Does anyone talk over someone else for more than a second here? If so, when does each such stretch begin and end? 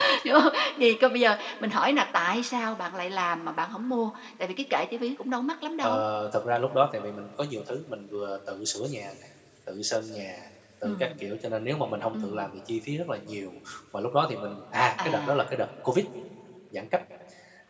none

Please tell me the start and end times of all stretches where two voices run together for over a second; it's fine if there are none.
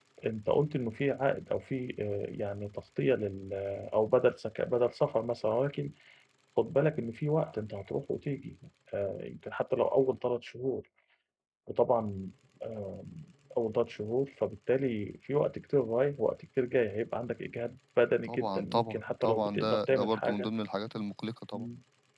18.2-20.5

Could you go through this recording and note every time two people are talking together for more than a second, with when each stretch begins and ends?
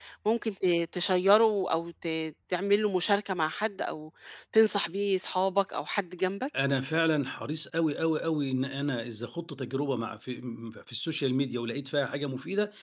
none

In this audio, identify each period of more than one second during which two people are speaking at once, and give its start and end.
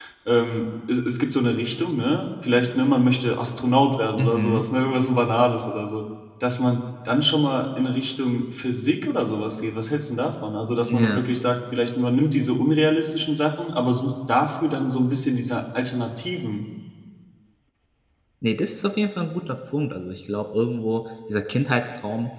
none

